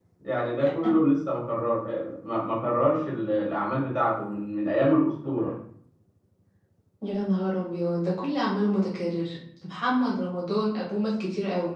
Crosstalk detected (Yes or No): No